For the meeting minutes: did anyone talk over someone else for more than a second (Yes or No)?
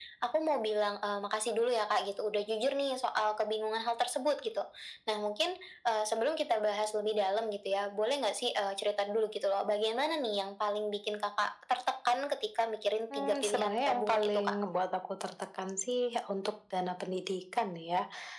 Yes